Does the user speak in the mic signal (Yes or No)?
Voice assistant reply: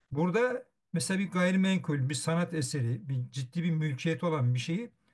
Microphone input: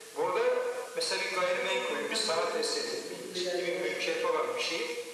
Yes